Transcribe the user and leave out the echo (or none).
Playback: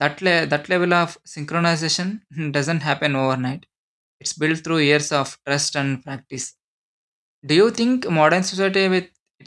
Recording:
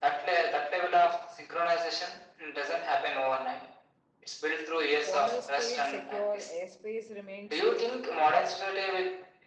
Borders stayed secure, airspace remained safe,